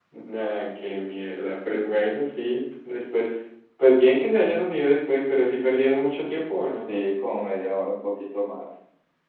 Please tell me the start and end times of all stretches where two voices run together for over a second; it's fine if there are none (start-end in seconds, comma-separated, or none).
none